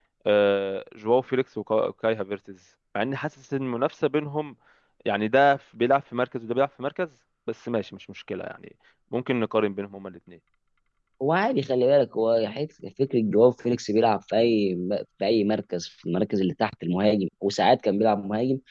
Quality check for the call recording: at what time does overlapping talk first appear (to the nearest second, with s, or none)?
none